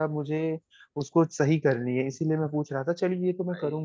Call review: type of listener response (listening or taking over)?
listening